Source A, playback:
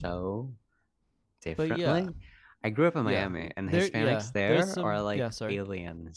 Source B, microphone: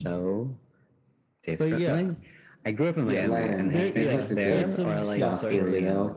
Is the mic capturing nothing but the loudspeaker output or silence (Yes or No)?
No